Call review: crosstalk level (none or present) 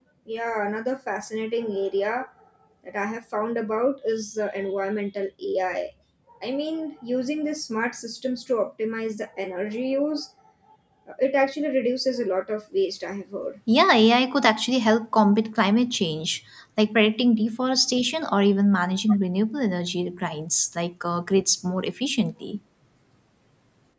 none